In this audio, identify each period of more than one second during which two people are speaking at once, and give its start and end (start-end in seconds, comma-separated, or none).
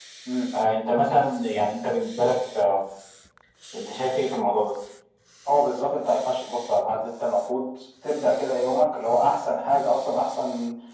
none